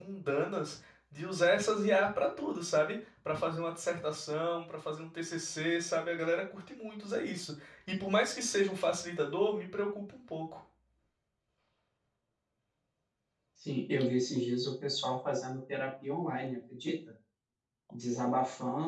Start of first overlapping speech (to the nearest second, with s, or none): none